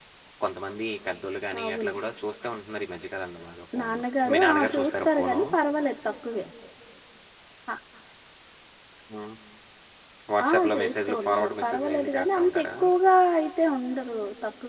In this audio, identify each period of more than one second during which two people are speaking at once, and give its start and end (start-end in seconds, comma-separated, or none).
3.8-5.4, 10.5-12.7